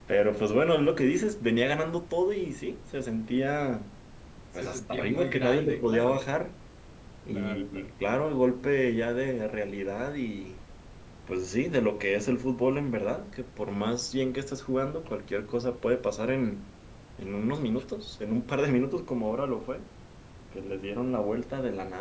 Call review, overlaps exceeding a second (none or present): present